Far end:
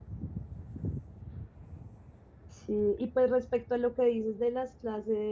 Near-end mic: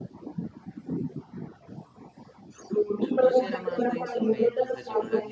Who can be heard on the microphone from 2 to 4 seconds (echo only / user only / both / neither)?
both